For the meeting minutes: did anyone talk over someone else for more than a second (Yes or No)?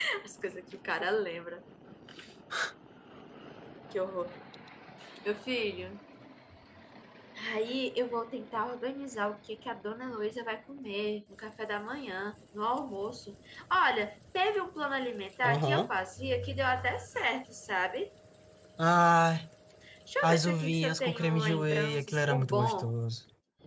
Yes